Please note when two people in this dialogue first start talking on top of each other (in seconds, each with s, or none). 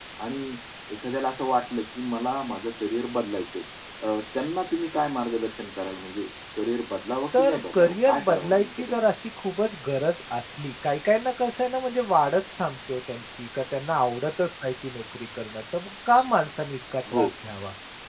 7.3 s